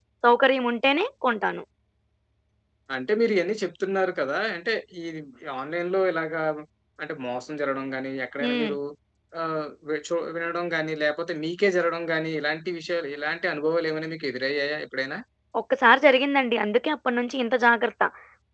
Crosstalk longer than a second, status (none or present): none